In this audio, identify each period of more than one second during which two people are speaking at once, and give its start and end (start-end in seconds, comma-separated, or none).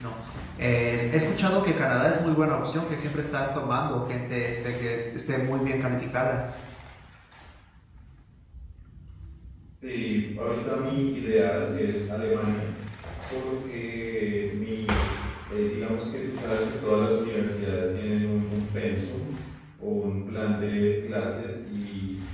none